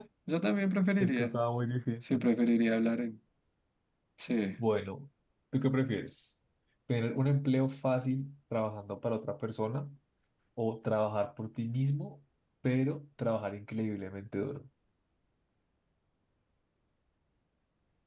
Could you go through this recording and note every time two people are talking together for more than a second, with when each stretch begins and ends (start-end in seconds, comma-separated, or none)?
none